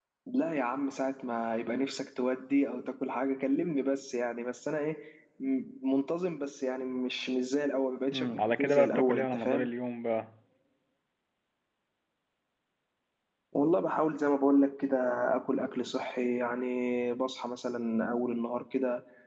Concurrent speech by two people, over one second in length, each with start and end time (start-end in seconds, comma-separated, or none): 8.1-9.7